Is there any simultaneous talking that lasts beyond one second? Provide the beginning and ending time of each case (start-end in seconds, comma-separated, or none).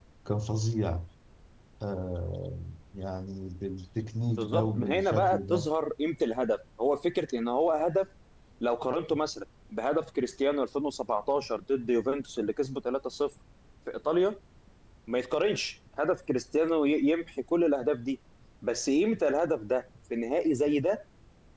4.3-5.7